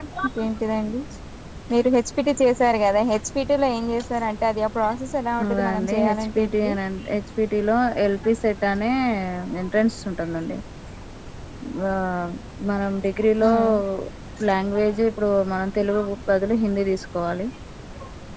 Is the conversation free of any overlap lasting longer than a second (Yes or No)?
No